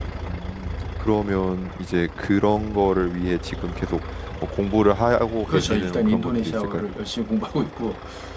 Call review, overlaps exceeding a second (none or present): present